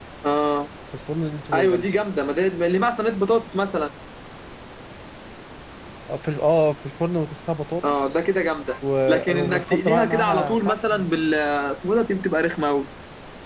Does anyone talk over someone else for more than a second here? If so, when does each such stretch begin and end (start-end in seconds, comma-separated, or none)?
9.1-11.1